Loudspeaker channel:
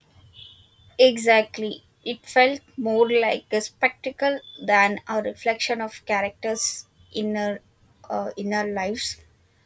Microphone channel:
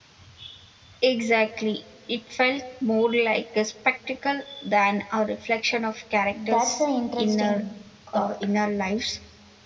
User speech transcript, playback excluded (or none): That's an interesting thought.